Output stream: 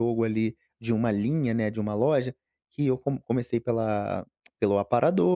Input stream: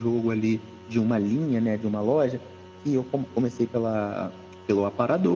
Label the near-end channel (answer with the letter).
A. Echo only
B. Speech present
A